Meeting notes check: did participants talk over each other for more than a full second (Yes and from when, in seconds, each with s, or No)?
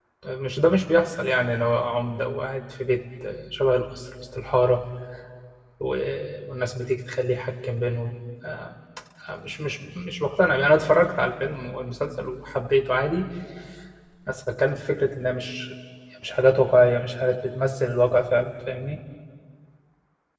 No